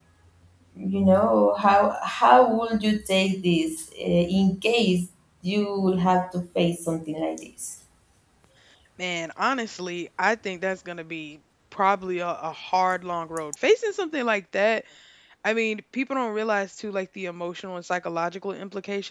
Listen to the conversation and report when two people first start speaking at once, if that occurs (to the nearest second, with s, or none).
none